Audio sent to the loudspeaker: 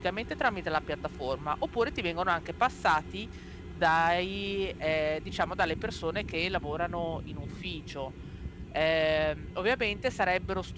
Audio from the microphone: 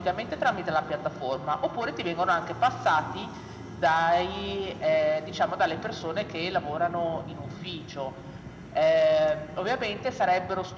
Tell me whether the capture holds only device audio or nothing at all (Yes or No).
Yes